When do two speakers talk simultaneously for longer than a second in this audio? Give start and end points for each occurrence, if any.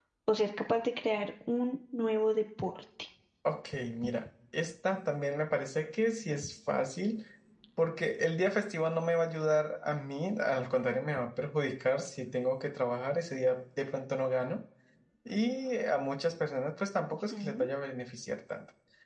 none

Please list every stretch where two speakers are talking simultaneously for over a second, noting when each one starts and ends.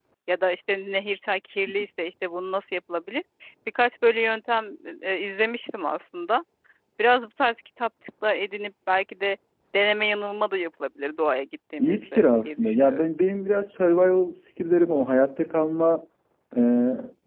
11.8-13.1

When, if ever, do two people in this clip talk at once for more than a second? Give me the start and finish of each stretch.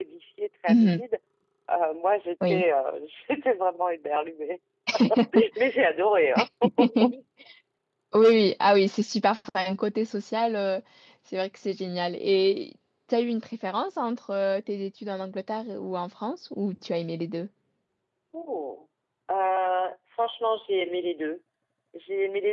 none

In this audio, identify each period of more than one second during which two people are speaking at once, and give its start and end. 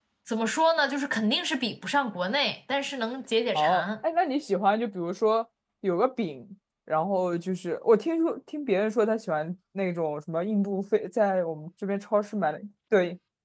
none

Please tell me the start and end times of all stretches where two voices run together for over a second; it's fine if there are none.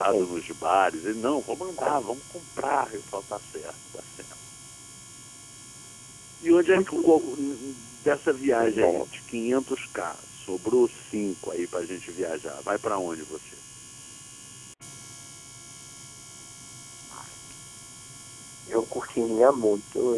none

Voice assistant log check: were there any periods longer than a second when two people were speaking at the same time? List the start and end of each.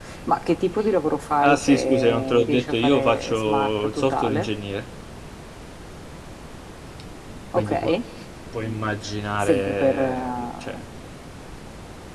1.4-4.5, 9.4-10.8

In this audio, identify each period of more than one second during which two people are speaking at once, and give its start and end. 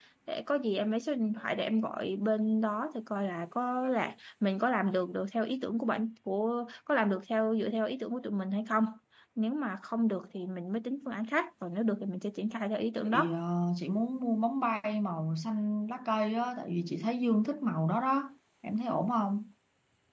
none

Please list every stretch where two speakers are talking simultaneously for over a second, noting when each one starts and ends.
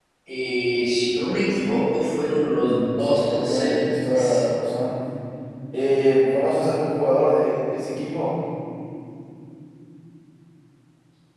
3.0-4.4

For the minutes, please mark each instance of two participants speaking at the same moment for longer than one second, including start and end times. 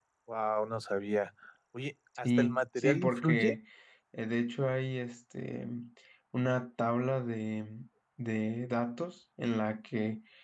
2.2-3.5

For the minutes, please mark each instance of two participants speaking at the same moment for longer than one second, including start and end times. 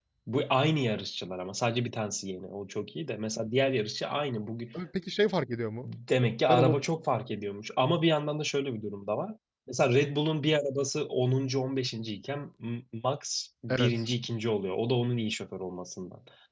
none

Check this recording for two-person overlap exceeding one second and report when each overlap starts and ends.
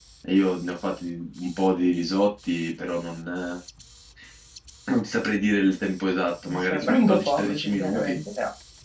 6.4-8.2

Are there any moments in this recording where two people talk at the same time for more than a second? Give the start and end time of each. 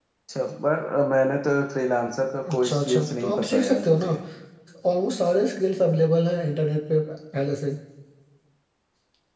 2.5-4.1

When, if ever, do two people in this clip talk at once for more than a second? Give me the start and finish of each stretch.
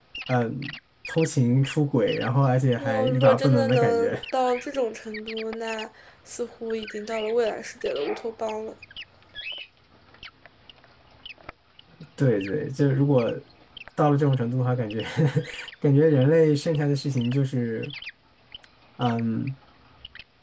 2.8-4.2

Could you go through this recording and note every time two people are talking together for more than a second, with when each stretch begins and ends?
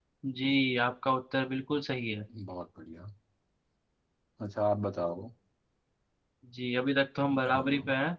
none

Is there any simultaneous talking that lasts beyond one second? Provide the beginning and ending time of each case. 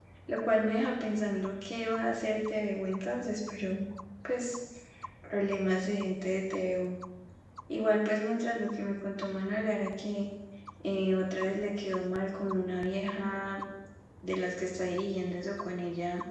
none

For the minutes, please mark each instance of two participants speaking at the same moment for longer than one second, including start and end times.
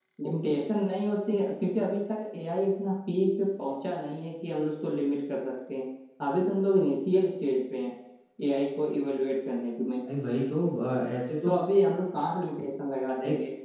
none

